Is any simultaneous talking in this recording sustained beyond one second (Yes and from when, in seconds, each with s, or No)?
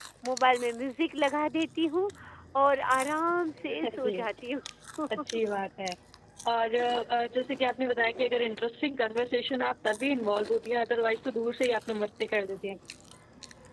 No